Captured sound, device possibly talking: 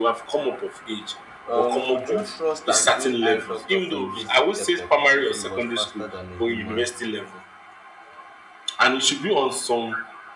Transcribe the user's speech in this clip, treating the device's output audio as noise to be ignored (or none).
um, would you trust an AI doctor for a basic checkup if it was faster than a human?